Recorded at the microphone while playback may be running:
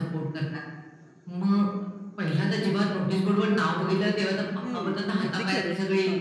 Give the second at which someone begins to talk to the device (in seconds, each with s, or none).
4.6 s